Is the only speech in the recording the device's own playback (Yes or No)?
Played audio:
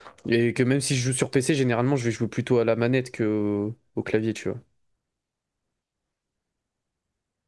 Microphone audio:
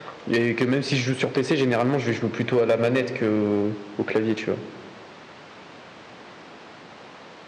Yes